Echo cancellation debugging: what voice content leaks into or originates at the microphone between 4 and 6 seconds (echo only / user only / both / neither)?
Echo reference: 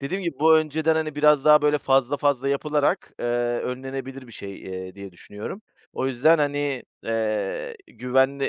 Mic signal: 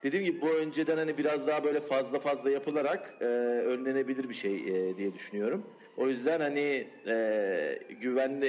echo only